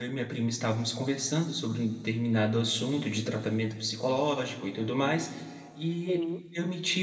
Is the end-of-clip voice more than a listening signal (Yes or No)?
No